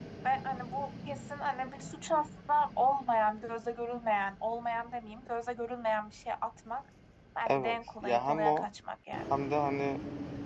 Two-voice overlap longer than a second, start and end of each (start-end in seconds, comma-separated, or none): 7.5-8.7